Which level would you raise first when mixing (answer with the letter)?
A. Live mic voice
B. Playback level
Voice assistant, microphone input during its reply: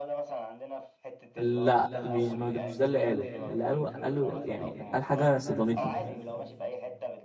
B